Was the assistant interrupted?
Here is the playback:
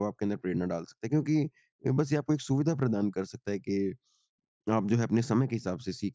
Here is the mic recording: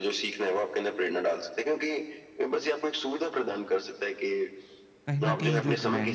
Yes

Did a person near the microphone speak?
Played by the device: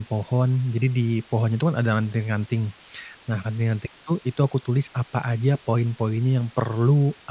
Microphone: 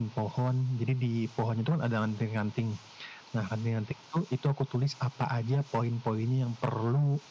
No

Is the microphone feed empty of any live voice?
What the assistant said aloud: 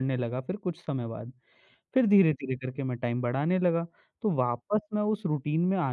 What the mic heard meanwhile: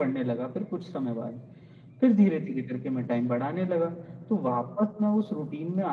Yes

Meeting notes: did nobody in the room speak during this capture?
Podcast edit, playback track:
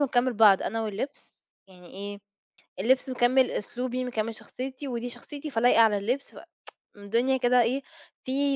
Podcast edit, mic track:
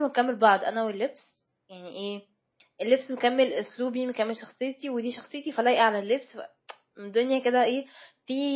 Yes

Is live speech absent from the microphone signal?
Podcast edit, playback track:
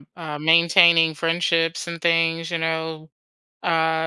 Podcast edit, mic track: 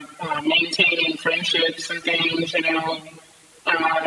Yes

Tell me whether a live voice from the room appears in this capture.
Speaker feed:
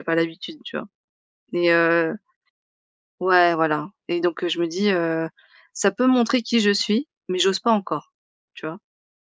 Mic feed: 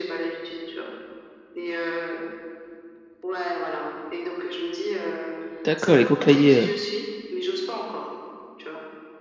Yes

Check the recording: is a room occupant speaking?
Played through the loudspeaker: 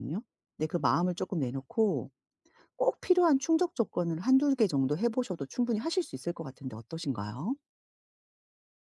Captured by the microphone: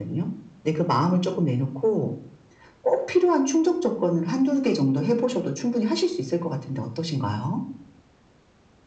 No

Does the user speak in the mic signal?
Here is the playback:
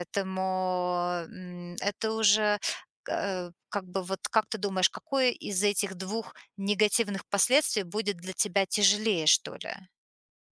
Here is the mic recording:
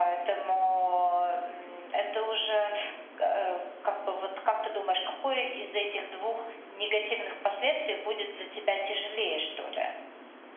No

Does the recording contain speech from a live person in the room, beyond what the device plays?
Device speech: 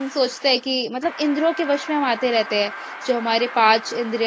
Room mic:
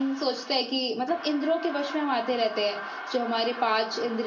No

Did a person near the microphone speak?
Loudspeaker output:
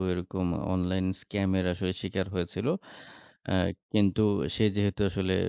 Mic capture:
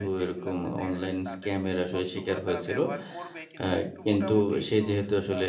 Yes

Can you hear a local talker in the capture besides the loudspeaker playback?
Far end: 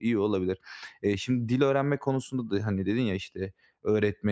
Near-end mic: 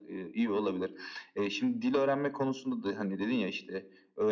No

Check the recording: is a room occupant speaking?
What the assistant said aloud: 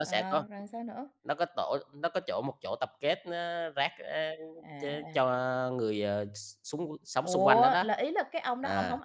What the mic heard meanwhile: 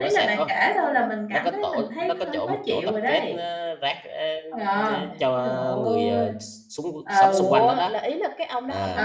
Yes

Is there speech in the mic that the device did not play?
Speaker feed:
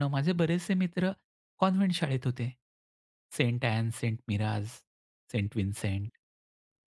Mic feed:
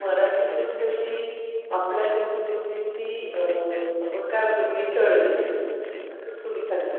Yes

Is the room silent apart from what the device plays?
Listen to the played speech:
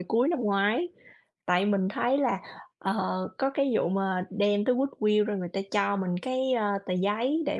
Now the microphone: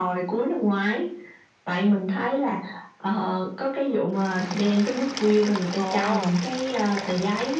No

